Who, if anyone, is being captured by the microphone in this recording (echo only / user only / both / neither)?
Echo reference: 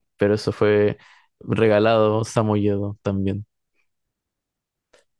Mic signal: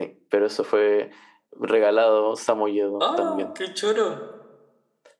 both